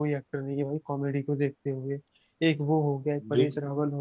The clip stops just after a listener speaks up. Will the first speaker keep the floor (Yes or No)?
Yes